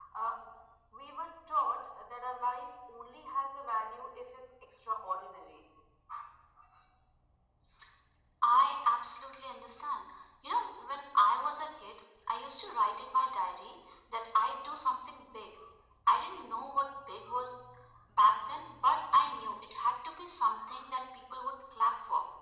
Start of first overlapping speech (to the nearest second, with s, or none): none